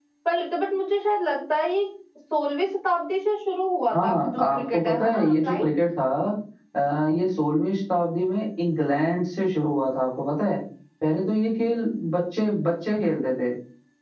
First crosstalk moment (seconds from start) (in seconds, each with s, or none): 3.9 s